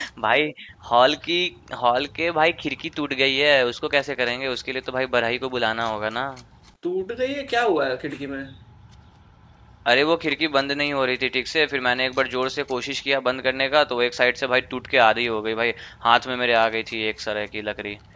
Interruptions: none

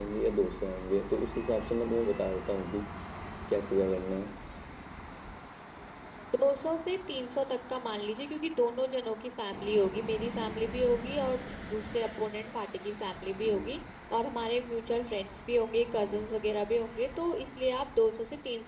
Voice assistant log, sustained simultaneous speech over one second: none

